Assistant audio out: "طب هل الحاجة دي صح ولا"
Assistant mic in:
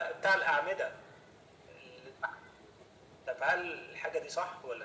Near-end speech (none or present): none